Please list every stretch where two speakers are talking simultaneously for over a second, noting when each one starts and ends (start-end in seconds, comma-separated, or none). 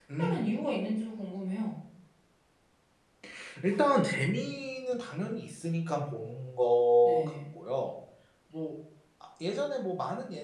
none